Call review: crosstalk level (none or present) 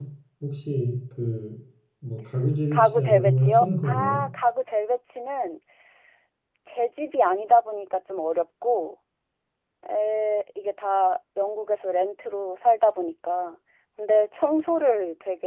present